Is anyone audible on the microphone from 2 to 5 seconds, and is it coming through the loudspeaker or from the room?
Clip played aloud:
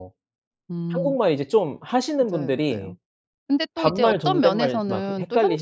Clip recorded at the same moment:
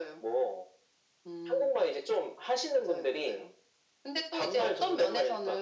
echo only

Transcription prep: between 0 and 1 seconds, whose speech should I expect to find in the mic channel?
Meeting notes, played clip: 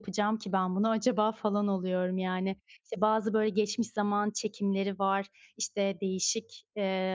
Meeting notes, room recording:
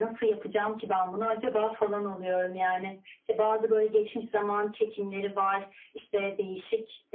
echo only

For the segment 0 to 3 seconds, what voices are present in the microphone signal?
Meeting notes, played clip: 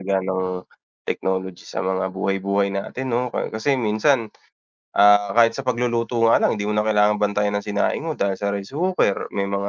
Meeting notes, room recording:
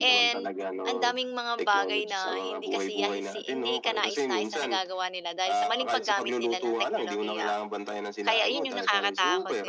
both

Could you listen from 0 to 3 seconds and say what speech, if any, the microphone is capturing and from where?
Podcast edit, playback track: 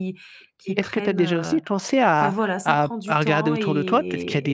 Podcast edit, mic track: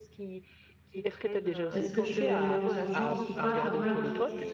both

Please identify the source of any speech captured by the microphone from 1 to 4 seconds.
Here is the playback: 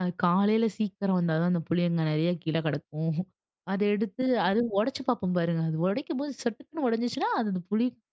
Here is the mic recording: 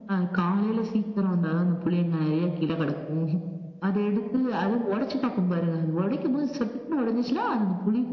echo only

